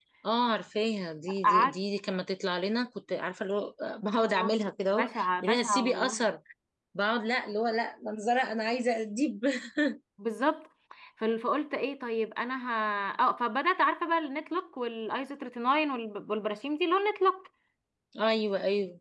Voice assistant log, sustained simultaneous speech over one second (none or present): present